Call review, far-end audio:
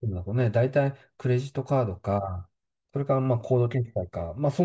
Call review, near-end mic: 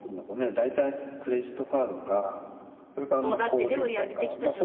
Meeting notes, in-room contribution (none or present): present